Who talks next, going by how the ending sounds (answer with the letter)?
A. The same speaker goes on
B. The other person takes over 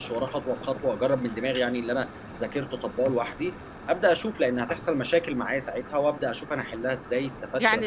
B